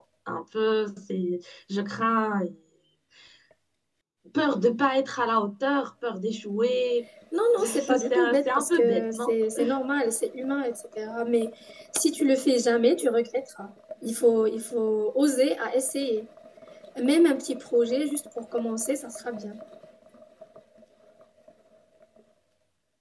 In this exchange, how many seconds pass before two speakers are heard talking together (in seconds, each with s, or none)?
7.6 s